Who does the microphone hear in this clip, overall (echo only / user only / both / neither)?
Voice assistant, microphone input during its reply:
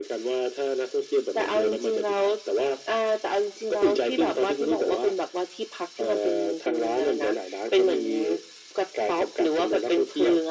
echo only